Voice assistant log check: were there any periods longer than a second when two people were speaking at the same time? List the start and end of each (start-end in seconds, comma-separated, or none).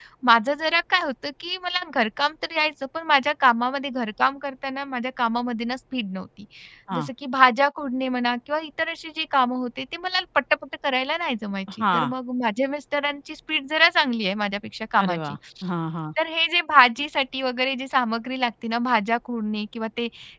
none